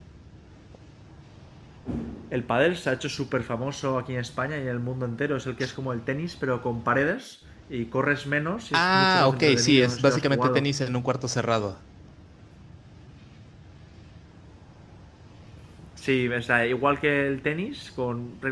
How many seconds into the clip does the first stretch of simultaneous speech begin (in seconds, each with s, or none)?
8.7 s